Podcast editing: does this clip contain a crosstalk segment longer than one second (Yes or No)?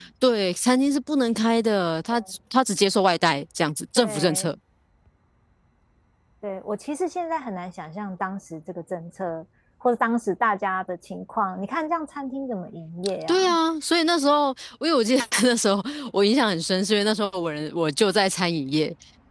No